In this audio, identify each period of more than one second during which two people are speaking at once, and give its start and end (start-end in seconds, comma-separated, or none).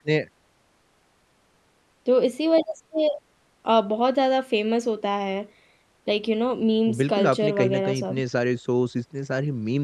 7.0-8.2